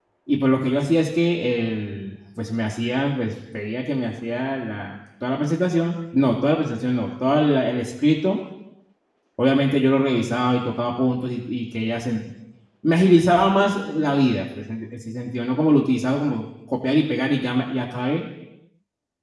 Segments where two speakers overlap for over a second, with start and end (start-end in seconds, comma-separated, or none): none